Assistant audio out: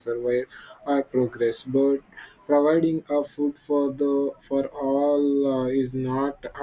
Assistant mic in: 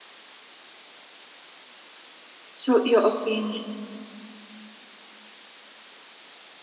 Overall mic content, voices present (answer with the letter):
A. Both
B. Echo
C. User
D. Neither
C